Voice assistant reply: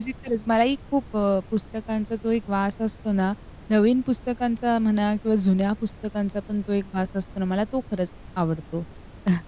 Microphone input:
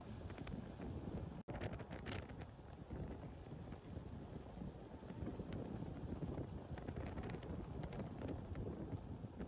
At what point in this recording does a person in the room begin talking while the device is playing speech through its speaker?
none

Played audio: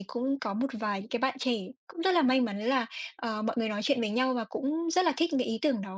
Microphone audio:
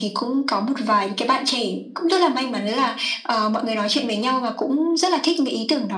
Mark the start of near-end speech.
none

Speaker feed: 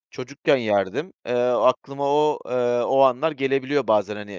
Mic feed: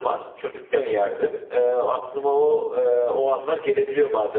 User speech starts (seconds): none

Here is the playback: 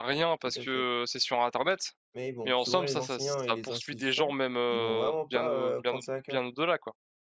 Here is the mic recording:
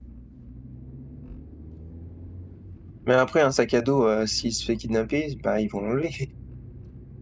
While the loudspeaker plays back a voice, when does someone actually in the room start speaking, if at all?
3.1 s

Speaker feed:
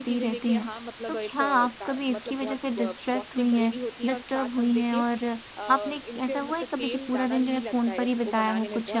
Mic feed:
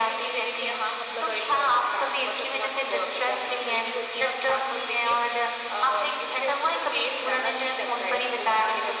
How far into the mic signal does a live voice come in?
none

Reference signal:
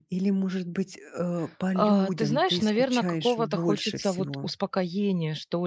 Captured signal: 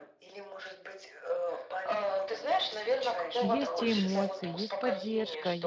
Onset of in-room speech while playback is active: 3.4 s

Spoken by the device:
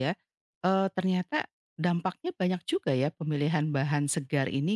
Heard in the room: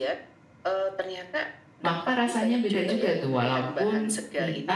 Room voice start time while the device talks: 1.8 s

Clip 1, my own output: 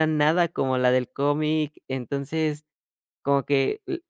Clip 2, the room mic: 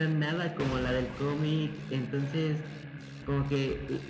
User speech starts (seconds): none

